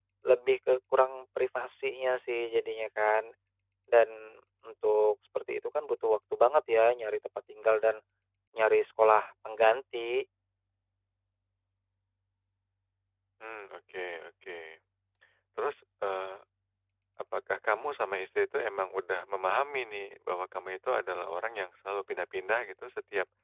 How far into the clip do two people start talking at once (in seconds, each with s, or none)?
none